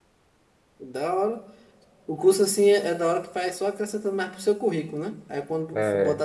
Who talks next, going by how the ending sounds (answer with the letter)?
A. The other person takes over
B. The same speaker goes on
B